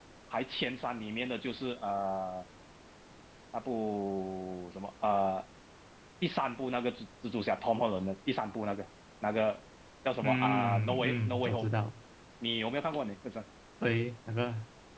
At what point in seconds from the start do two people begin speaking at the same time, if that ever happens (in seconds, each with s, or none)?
10.2 s